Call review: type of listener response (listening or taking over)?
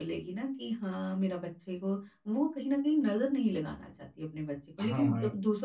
listening